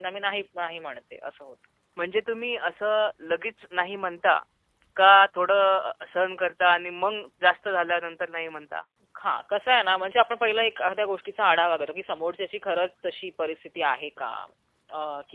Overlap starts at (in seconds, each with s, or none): none